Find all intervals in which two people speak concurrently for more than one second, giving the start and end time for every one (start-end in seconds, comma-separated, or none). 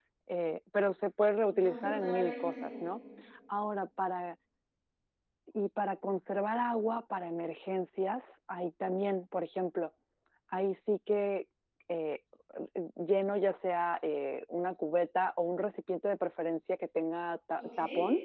1.5-2.9